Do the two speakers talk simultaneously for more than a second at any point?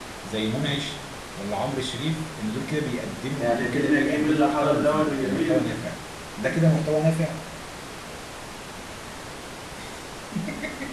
Yes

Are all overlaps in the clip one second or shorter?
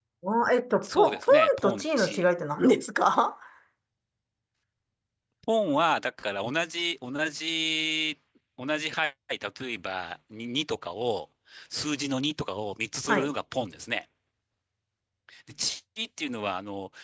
No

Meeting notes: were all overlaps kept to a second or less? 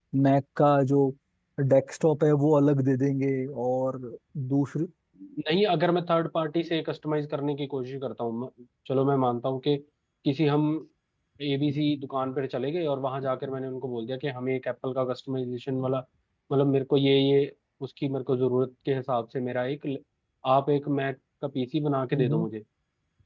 Yes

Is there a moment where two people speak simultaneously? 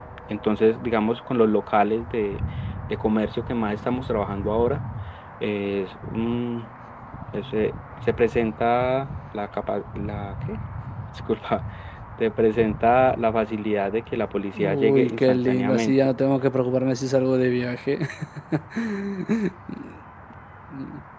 Yes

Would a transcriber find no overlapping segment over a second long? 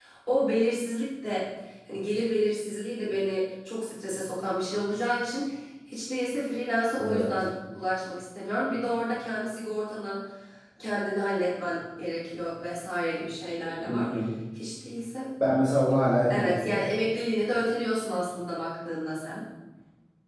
Yes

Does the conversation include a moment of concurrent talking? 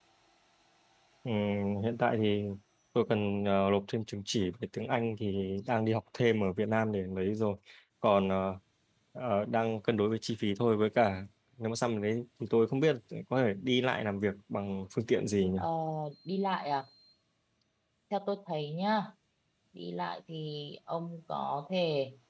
No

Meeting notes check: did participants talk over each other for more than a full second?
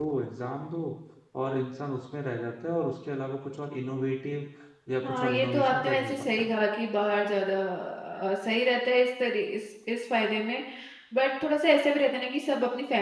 Yes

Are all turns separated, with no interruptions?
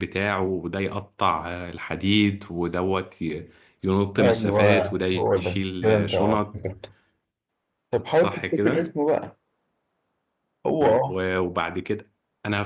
No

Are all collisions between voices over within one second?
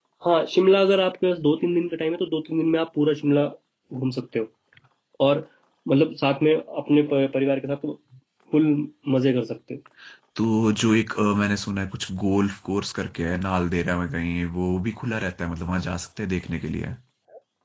Yes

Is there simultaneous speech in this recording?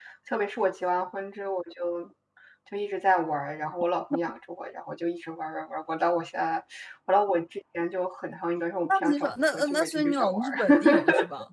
Yes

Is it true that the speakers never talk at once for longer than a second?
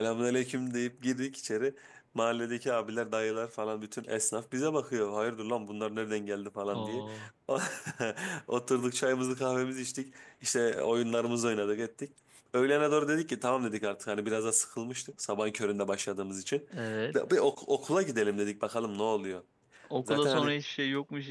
Yes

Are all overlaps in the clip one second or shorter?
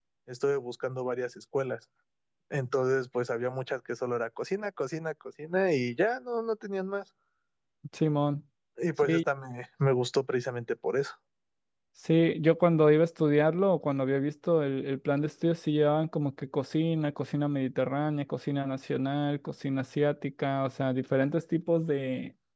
Yes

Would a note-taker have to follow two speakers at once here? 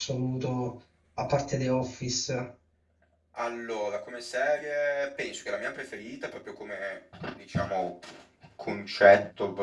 No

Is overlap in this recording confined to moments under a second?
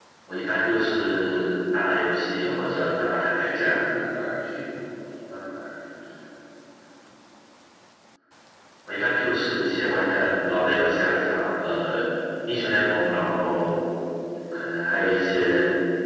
No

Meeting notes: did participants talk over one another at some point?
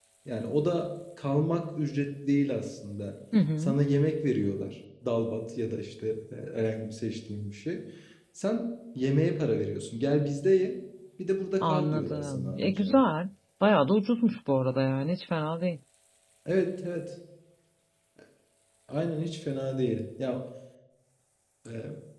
Yes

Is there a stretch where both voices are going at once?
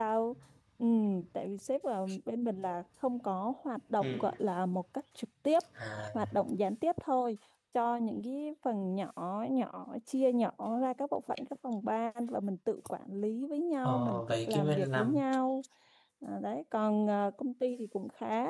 Yes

